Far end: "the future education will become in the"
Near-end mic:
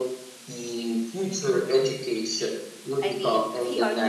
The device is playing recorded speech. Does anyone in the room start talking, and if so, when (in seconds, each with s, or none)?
3.0 s